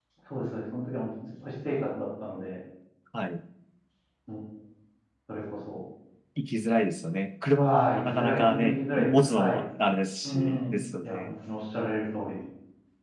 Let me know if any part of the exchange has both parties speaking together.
Yes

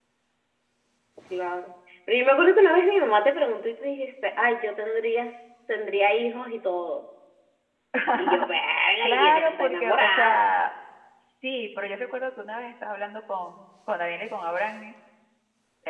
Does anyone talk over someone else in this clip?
Yes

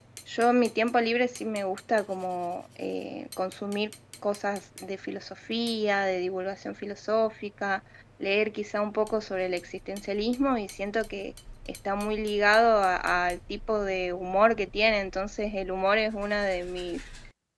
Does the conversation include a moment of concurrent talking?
No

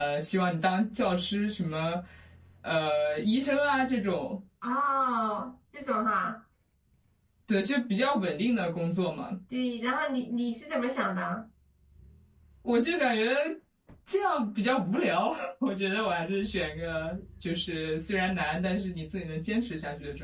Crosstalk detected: No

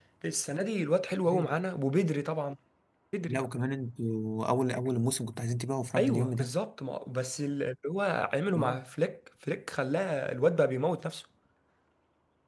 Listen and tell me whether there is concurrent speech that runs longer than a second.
No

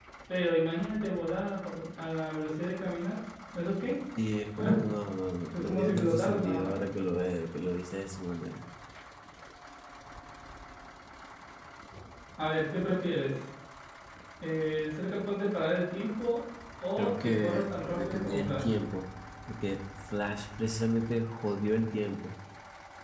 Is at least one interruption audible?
Yes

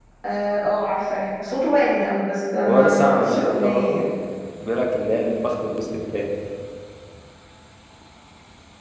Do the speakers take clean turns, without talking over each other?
No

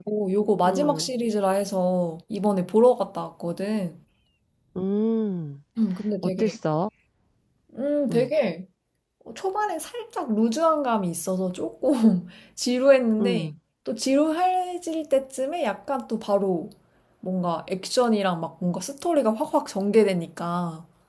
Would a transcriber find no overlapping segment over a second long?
Yes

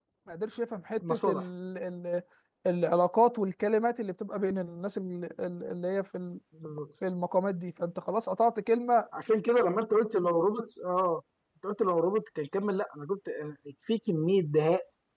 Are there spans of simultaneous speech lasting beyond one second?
No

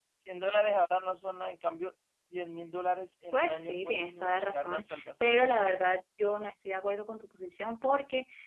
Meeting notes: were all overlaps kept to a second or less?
No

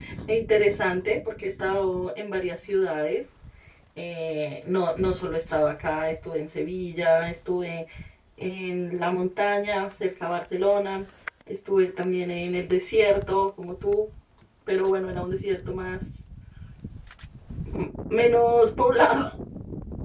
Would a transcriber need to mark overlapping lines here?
No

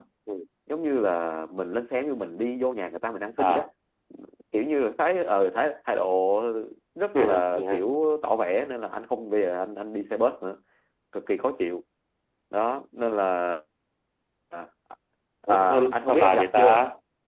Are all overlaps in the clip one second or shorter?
No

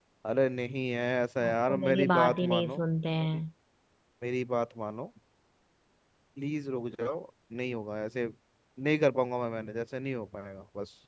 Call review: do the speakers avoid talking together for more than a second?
No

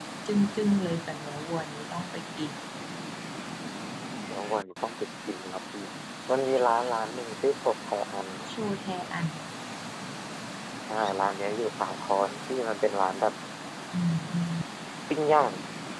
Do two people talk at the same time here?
No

